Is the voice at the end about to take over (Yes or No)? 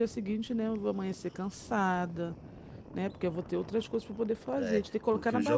Yes